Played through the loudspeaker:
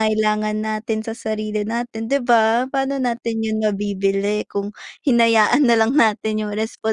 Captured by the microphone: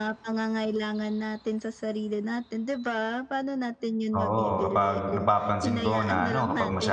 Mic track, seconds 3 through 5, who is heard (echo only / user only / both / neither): both